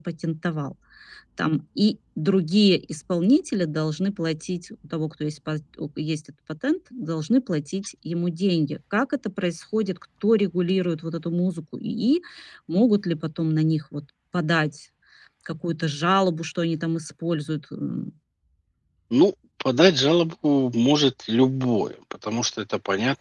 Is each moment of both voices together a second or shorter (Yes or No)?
Yes